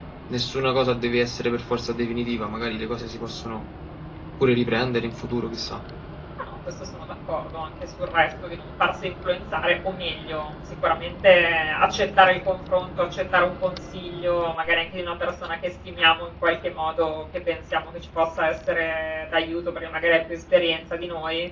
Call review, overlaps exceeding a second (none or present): none